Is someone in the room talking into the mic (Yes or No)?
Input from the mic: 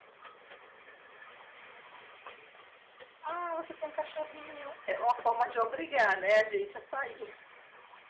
Yes